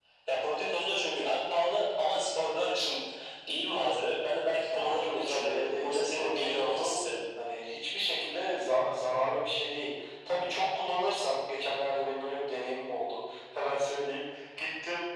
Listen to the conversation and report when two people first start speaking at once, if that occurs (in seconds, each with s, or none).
4.7 s